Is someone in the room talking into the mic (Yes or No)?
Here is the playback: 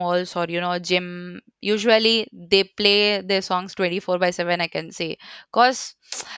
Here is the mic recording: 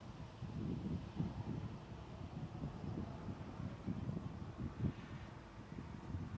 No